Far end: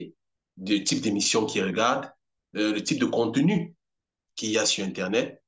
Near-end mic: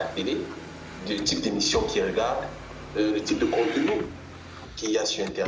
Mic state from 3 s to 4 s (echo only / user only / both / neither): echo only